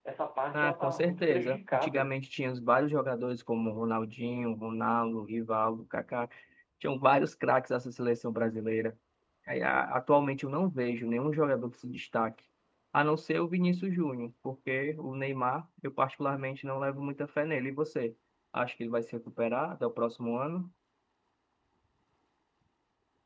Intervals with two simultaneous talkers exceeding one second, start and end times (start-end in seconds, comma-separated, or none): 0.5-2.1